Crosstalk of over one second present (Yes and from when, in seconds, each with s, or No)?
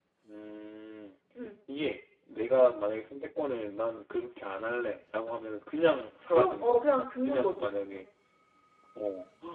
Yes, from 6.3 s